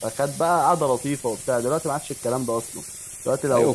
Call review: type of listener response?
listening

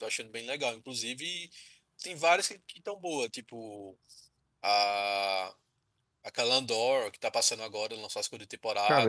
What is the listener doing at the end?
taking over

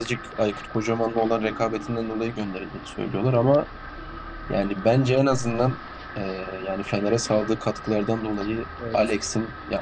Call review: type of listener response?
listening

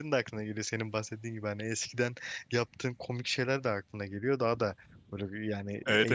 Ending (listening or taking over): taking over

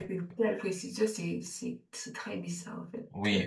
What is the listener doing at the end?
taking over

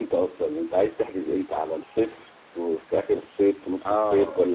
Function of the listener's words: taking over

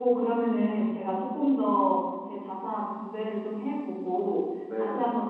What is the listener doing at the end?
listening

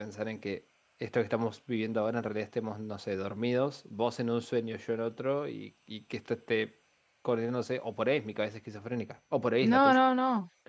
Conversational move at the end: taking over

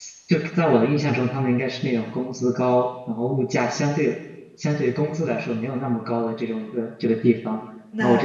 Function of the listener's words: listening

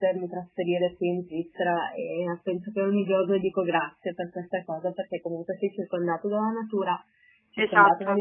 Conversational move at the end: listening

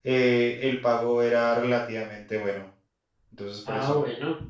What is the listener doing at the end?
taking over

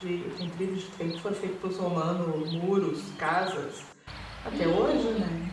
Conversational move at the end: taking over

